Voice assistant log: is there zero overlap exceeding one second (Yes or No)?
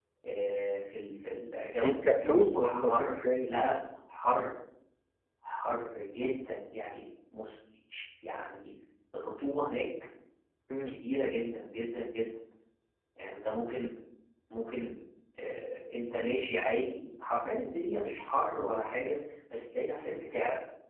No